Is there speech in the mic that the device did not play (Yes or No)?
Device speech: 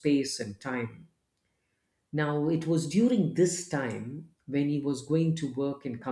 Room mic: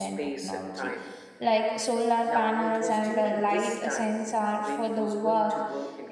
Yes